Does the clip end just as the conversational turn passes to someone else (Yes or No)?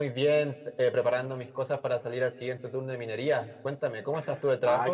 Yes